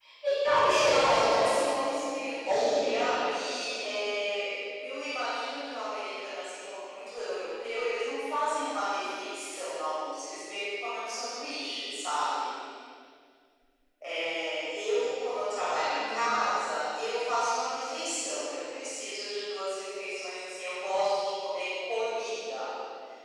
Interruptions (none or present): present